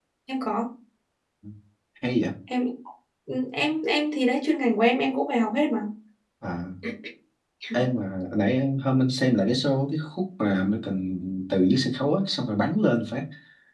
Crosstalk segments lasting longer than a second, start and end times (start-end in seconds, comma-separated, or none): none